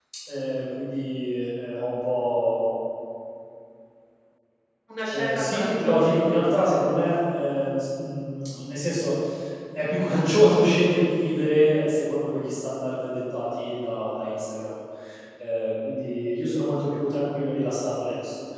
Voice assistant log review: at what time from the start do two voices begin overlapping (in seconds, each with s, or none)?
5.1 s